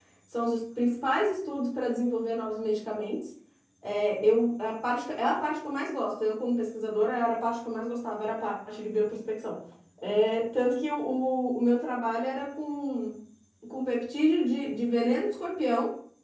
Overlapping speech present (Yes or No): No